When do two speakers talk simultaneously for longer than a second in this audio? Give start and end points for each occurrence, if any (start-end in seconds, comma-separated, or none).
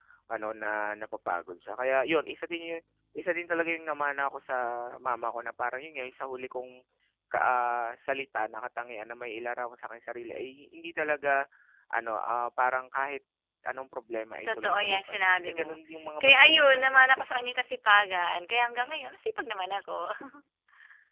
14.5-15.7, 16.2-17.4